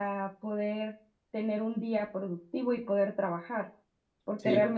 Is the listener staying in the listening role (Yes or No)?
Yes